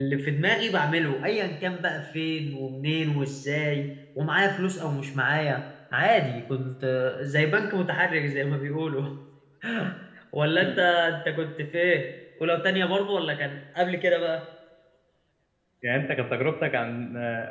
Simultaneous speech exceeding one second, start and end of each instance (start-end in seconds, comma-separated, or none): none